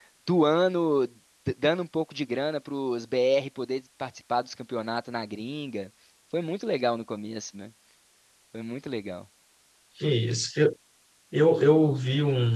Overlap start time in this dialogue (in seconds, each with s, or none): none